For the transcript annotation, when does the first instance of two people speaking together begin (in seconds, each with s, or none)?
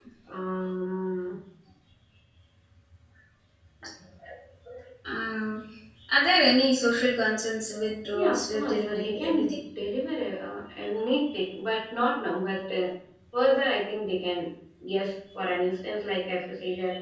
8.1 s